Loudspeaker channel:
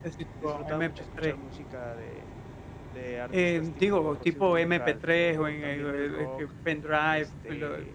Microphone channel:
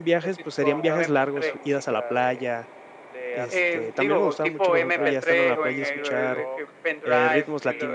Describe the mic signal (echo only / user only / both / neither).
both